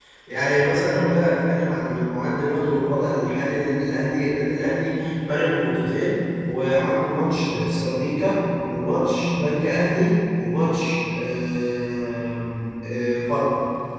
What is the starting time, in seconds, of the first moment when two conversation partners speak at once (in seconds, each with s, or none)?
none